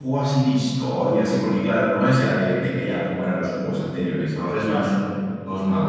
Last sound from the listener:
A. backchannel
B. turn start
A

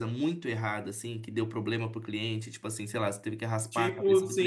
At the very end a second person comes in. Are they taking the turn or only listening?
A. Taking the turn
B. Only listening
A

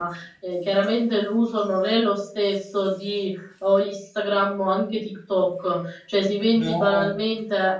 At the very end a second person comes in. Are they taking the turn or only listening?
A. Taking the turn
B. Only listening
B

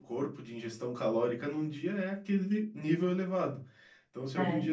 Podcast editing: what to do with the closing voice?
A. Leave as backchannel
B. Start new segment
A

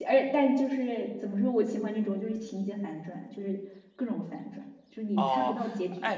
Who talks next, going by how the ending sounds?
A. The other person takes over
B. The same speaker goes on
A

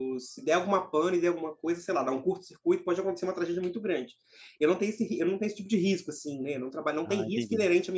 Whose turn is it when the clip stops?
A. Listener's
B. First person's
B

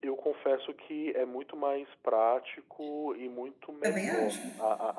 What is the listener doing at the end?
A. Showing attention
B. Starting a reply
A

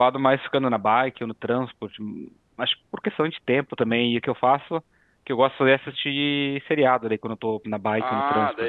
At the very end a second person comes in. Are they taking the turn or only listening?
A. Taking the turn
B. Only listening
A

